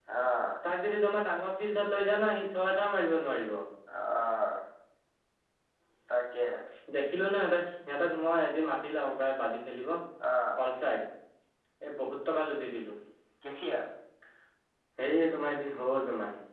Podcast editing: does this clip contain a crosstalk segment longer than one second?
No

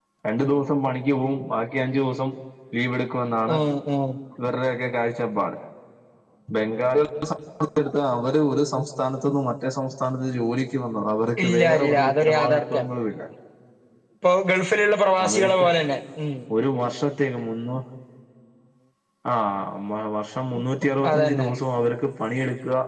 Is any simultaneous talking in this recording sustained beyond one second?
Yes, from 11.4 s

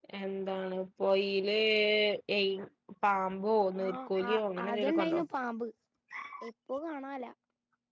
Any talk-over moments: Yes, from 3.8 s

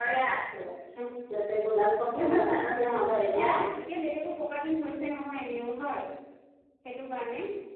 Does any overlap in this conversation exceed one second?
No

